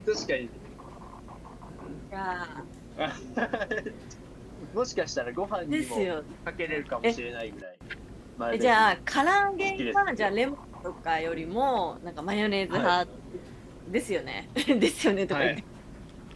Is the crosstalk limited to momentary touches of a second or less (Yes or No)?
Yes